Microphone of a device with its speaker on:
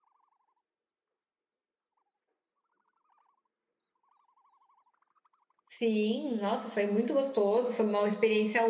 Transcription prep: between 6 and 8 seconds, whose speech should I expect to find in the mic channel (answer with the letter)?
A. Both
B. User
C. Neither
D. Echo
B